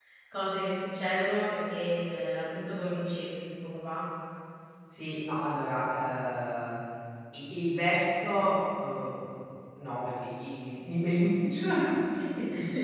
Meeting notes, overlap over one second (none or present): none